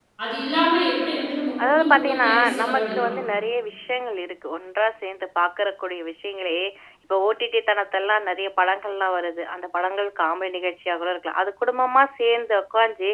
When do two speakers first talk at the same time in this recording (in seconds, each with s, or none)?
1.6 s